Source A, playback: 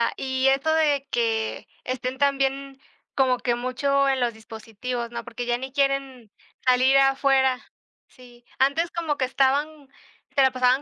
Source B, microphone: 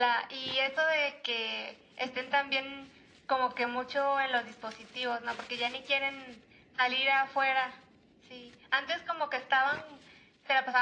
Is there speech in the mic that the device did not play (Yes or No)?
No